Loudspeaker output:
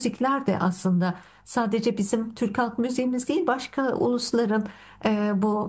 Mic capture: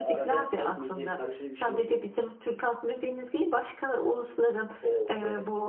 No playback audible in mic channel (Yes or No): No